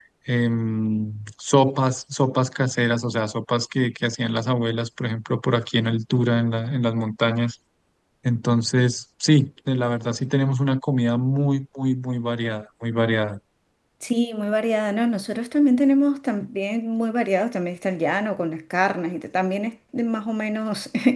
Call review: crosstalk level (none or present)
none